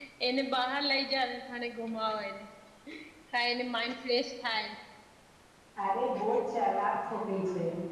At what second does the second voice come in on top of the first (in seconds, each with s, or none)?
none